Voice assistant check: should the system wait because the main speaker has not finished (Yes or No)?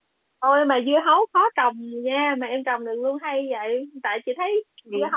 Yes